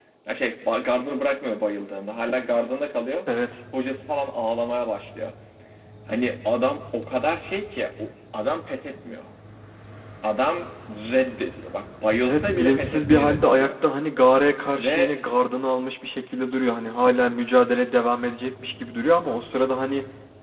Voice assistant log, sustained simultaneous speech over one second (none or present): present